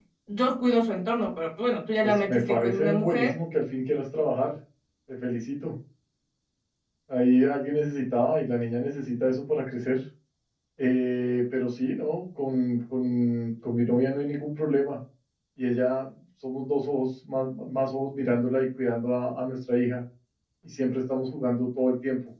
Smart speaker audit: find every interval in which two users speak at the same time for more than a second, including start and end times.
2.0-3.3

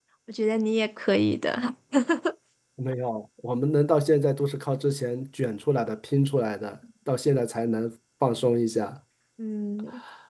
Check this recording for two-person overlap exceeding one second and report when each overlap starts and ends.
none

